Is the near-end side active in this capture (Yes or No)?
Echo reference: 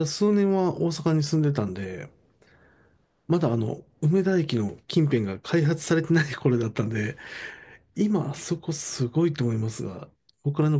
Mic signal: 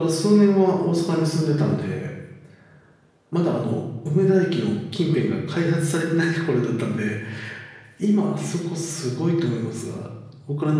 No